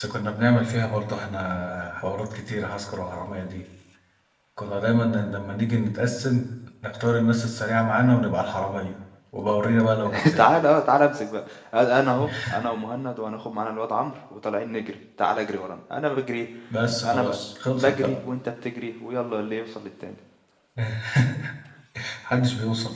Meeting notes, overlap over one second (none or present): none